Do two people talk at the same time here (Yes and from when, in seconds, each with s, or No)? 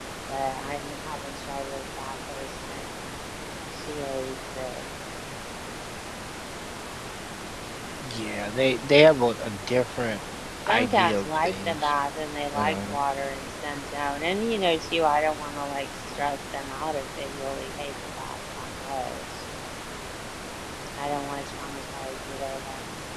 Yes, from 10.7 s